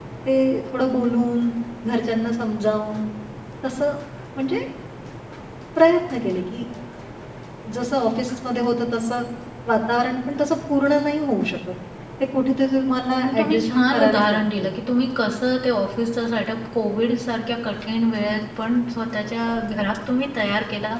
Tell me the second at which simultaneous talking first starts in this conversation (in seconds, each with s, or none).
13.2 s